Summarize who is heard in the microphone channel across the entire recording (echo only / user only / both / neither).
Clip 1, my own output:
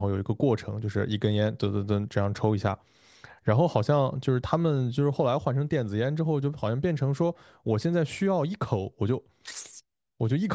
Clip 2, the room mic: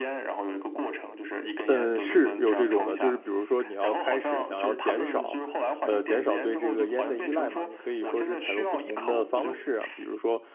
both